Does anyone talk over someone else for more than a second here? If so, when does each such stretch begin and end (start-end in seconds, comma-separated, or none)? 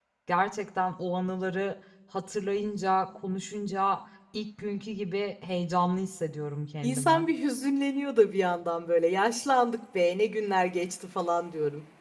none